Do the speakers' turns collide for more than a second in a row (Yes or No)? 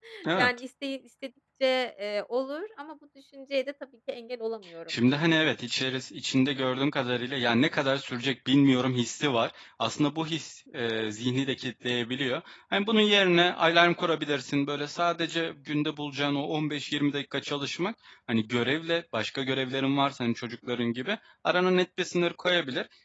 No